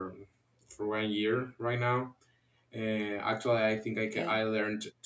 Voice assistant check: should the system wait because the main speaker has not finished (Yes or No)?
Yes